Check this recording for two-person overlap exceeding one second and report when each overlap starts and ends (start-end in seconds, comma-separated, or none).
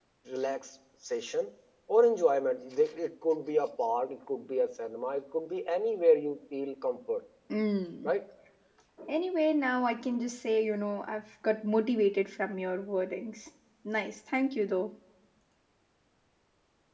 none